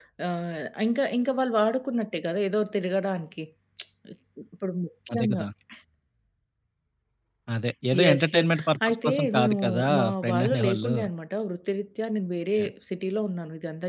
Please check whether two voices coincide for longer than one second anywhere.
Yes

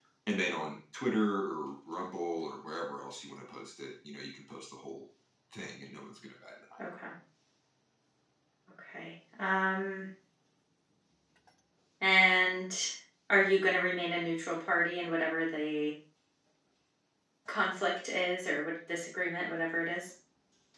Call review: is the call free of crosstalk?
Yes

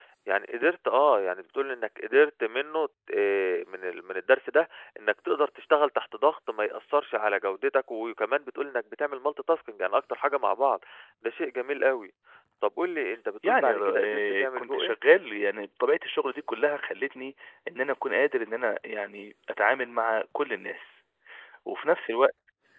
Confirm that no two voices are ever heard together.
No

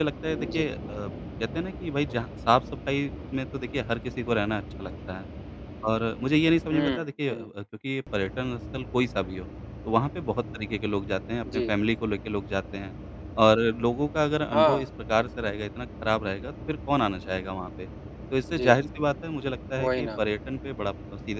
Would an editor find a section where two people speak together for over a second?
No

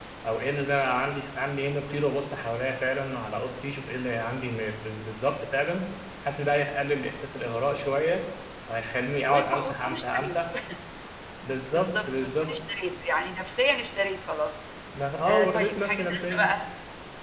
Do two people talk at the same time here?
Yes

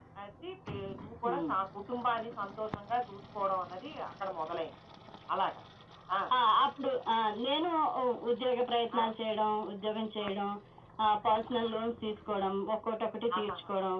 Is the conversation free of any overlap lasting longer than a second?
Yes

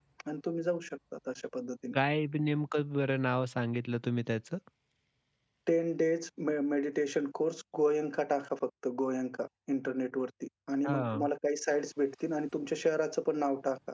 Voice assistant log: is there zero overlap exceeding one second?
Yes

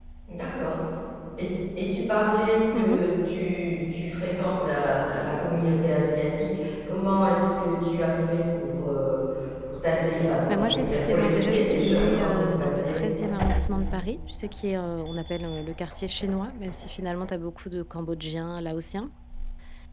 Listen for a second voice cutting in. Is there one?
Yes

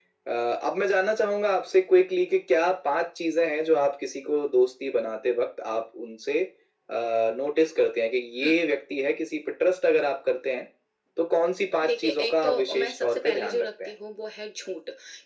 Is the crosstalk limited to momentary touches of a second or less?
No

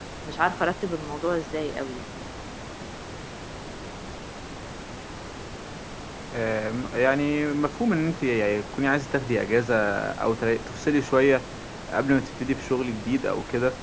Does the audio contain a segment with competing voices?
No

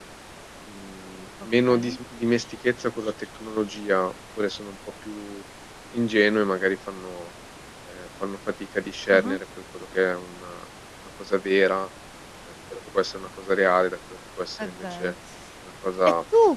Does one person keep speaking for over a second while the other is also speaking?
No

